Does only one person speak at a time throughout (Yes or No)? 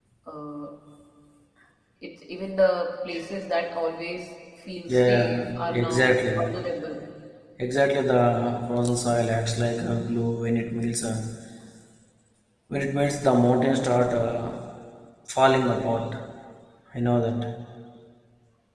No